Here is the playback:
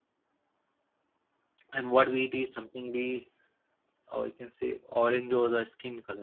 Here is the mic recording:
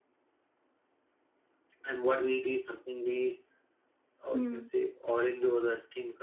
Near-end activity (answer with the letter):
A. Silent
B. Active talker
B